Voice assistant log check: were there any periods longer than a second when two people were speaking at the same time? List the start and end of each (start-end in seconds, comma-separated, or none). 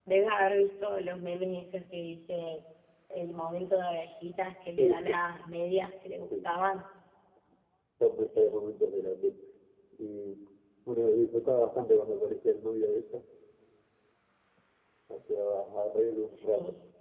none